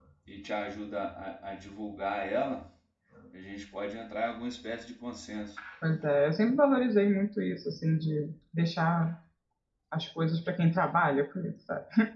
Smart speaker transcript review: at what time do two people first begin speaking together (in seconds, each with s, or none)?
none